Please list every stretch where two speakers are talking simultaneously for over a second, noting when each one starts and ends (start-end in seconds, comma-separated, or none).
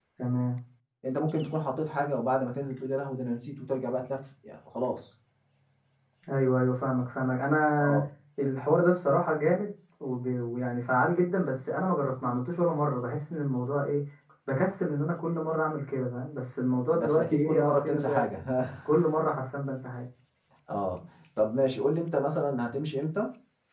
16.9-18.4